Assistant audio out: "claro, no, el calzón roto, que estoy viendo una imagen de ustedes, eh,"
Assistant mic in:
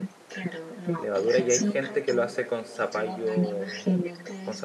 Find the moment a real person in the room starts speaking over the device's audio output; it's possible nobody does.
1 s

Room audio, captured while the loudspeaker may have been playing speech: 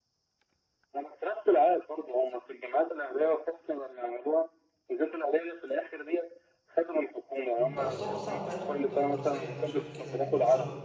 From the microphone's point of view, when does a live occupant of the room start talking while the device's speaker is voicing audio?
8 s

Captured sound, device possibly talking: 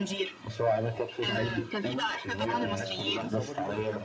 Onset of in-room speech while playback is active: 2 s

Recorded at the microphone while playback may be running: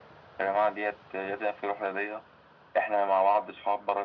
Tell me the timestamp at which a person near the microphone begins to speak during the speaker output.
none

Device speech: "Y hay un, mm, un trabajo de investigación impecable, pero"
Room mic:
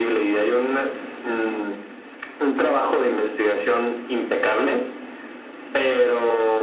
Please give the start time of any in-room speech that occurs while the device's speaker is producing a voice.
none

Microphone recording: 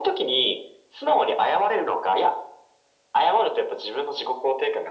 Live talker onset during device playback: none

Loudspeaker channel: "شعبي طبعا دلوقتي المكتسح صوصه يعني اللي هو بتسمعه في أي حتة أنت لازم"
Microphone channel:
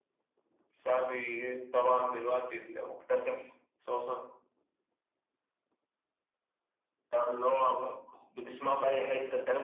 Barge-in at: none

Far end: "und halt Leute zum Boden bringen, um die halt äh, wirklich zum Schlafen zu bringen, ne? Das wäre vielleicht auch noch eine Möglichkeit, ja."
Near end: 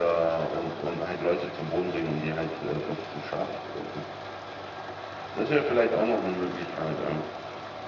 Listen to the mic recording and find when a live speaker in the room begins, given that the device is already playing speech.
none

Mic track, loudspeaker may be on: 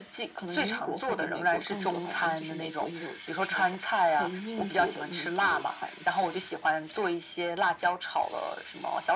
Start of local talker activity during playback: none

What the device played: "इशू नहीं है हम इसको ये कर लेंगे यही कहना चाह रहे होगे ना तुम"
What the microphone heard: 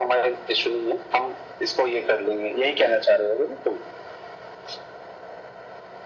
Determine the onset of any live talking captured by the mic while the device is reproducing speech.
none

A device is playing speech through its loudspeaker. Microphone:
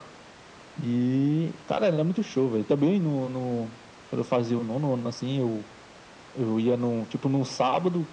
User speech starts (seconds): none

